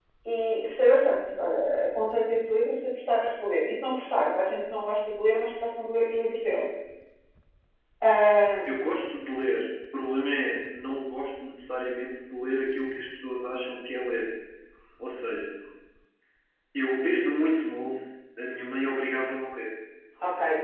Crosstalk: none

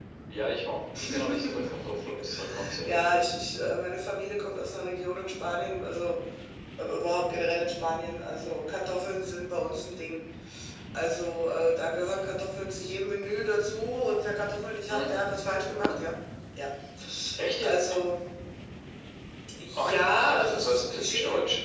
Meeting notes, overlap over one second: present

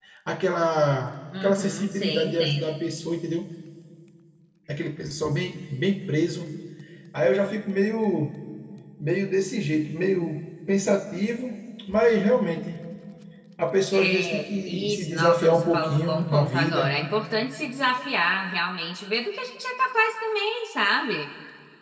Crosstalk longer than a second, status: present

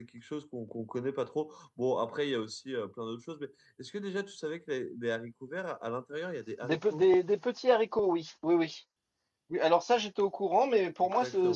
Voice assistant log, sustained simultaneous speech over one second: none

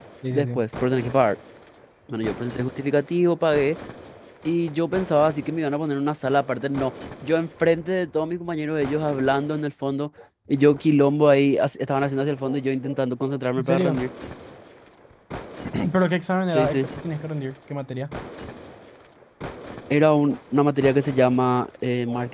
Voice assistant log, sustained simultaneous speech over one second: none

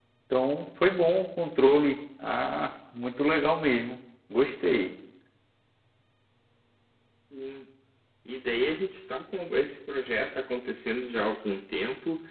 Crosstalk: none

